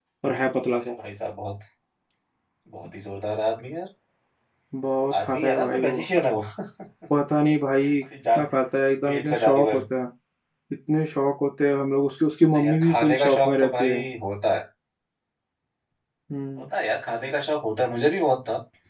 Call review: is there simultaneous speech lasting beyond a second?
Yes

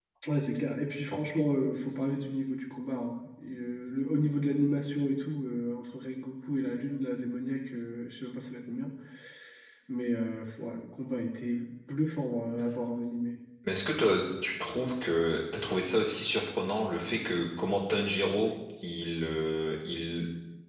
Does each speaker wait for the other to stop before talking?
Yes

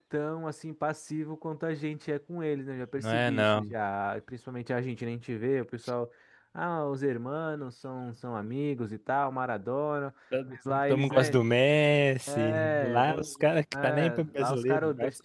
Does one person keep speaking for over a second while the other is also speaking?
Yes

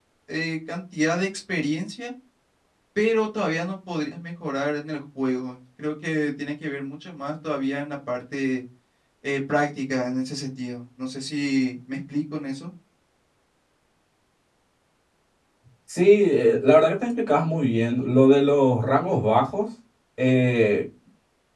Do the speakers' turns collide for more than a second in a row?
No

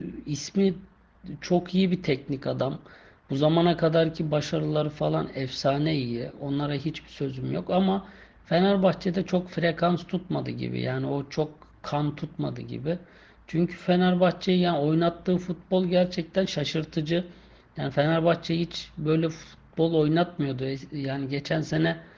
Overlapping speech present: No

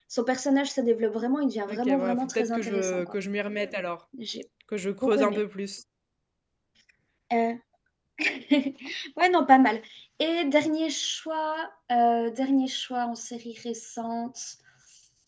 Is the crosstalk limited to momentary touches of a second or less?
No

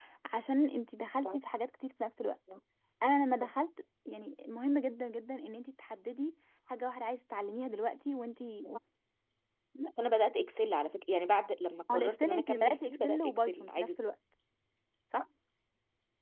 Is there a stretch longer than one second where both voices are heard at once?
Yes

